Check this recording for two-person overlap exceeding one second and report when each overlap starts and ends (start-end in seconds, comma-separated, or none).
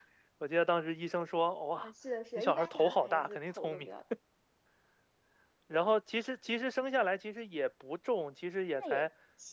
2.4-3.9